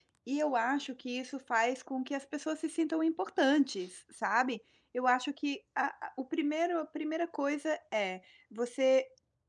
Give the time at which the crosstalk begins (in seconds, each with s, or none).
none